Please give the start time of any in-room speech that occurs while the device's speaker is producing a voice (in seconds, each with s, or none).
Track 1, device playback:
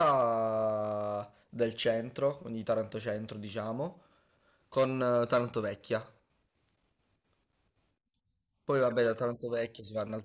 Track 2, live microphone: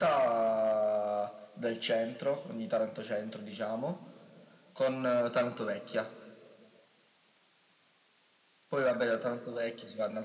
none